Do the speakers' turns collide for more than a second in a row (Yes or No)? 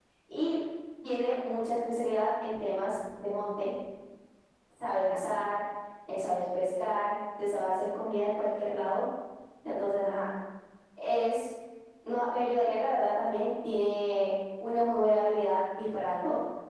No